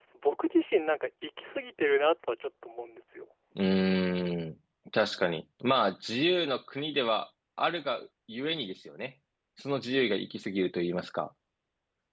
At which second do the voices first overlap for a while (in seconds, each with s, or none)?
none